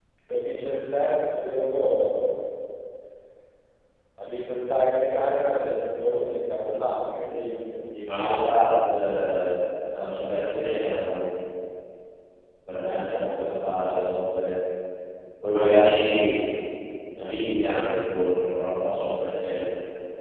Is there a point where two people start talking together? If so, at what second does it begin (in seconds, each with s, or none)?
none